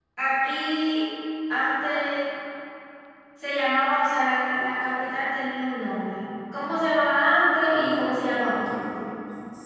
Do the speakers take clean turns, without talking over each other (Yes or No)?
No